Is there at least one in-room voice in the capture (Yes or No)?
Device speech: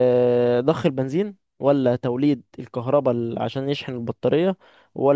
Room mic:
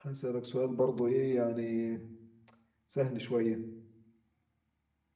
Yes